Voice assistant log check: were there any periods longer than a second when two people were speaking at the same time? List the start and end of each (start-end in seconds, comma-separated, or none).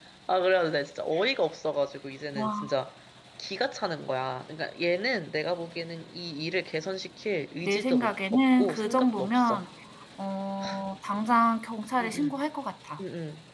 7.6-9.6